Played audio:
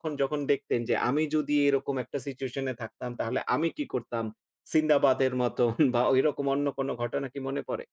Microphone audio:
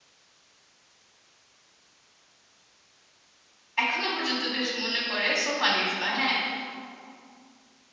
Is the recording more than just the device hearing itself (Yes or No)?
Yes